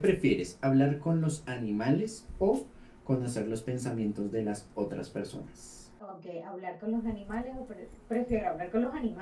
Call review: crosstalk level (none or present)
none